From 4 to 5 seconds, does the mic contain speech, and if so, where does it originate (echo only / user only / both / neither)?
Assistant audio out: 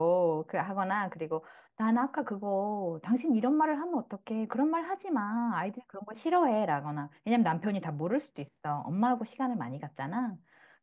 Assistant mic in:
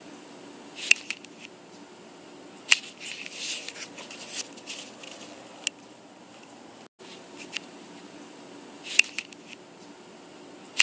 neither